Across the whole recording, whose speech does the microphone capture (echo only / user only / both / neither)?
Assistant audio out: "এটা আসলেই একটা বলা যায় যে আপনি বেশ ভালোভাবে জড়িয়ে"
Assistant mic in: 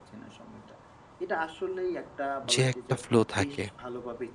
both